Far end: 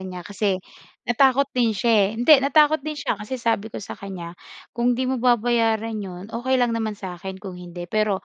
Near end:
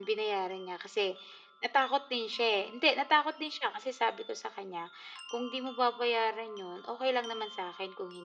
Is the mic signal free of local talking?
Yes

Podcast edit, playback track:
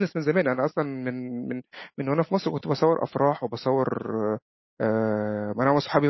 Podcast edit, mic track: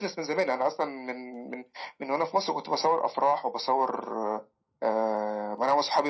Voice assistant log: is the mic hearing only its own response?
Yes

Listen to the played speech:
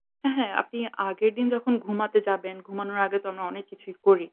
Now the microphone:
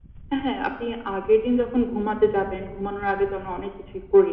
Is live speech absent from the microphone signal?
Yes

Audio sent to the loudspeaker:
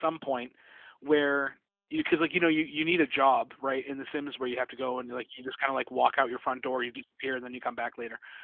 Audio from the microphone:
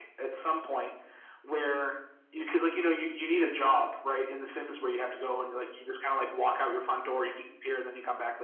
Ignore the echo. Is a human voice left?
No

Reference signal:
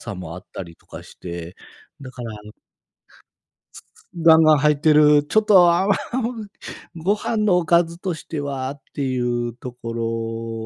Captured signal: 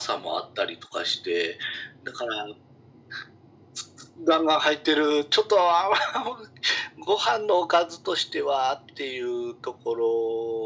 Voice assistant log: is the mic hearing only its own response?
Yes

